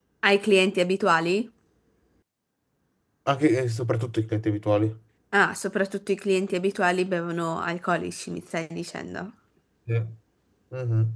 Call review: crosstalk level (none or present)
none